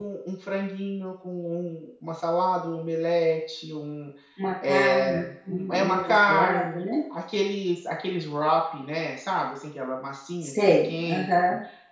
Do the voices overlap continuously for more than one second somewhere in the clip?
Yes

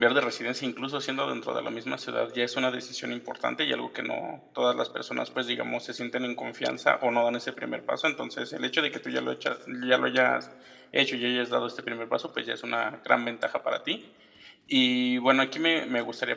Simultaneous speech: No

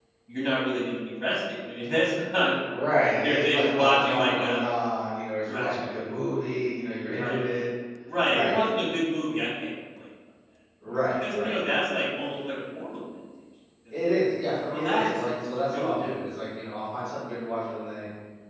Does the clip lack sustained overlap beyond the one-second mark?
No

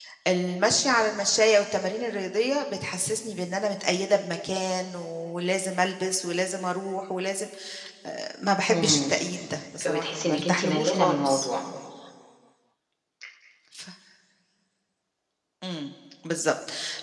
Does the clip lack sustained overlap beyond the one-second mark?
No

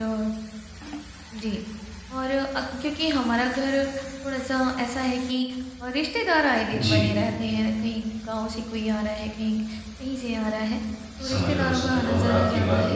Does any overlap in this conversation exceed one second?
Yes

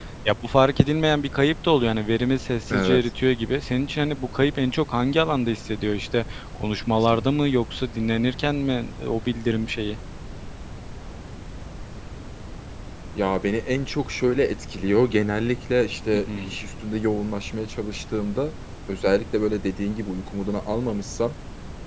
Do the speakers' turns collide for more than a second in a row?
No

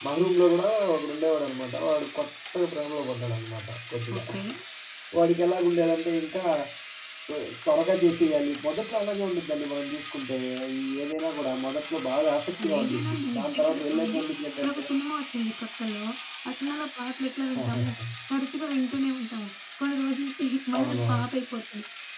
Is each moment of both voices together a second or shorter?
No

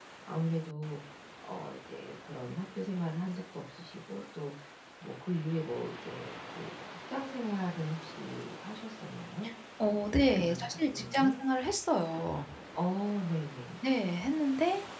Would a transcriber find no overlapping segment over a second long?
No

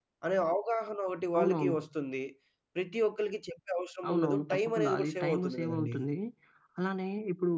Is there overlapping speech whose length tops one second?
Yes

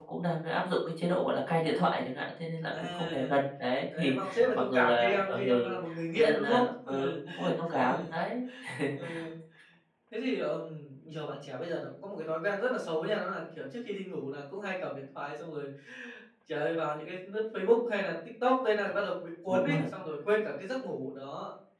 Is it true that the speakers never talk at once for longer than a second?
No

